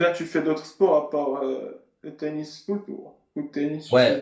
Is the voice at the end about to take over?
Yes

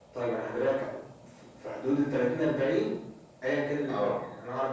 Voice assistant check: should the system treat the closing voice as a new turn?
No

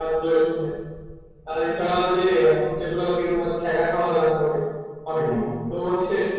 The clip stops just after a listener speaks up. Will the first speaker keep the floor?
Yes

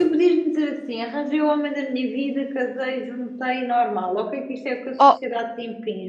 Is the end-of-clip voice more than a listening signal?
No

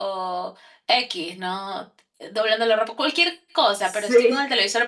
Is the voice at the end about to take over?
No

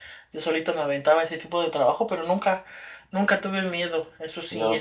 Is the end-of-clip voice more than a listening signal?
No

